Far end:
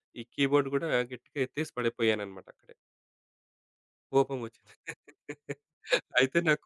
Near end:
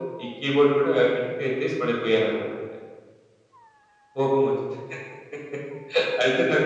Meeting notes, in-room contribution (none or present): none